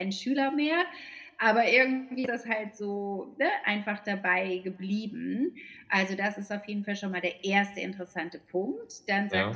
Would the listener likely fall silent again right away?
Yes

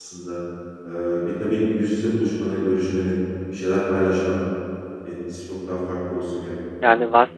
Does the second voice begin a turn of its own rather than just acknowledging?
Yes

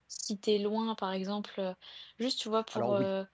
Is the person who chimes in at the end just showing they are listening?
Yes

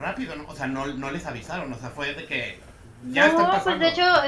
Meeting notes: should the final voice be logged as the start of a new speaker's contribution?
Yes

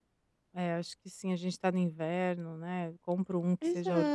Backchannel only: No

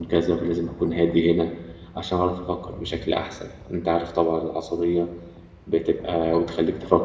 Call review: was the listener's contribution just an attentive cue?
Yes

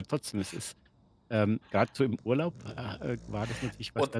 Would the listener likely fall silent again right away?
Yes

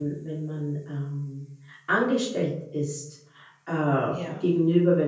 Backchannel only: Yes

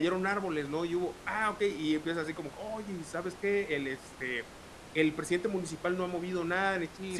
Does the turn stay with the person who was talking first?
No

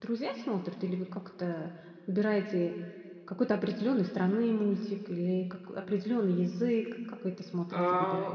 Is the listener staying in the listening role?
No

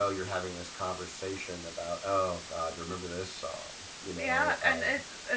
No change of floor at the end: No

